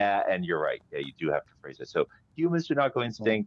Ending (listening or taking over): listening